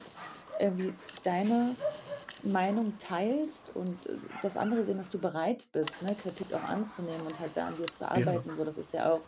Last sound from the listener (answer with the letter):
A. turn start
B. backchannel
B